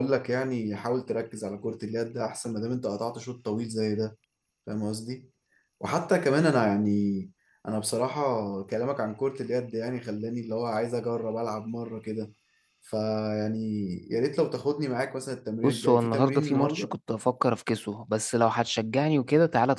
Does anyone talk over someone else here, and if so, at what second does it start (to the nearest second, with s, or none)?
16 s